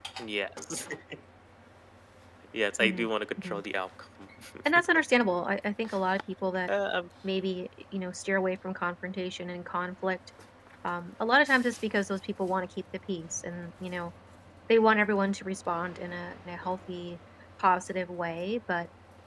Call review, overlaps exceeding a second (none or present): none